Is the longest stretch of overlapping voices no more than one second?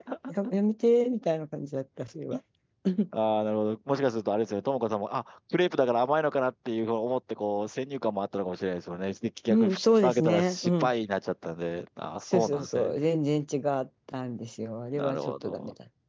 No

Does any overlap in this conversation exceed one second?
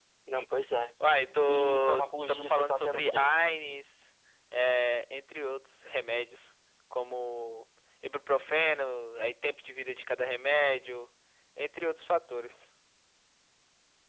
Yes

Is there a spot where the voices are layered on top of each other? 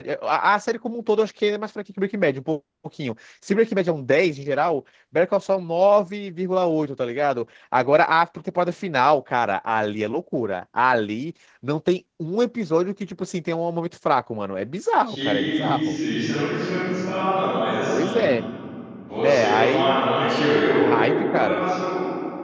Yes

